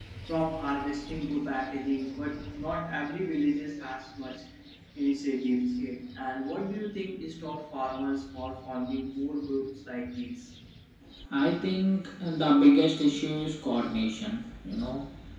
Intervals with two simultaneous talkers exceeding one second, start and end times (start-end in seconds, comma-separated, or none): none